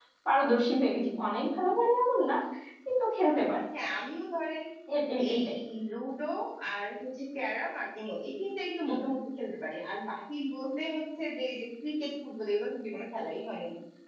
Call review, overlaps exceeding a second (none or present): none